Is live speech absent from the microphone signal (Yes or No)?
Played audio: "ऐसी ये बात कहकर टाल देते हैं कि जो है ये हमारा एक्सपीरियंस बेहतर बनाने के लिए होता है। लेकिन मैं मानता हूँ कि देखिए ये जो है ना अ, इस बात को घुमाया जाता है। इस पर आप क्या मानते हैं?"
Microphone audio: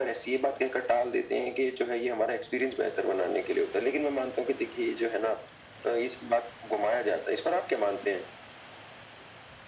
Yes